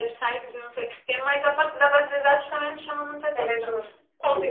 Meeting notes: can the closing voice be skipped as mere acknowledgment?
No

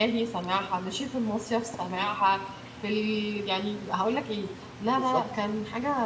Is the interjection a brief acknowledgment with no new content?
Yes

